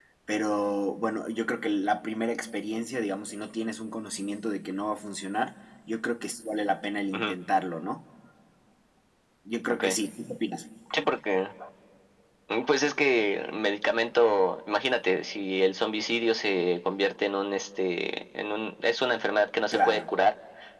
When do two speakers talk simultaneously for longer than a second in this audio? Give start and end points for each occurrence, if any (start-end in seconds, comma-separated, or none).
none